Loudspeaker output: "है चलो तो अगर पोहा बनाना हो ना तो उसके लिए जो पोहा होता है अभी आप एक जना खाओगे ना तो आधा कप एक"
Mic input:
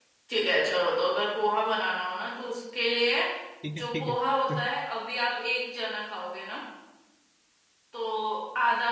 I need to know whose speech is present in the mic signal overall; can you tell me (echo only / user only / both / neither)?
both